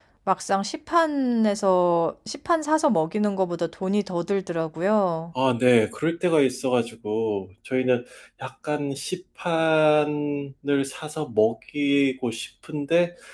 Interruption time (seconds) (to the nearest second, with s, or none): none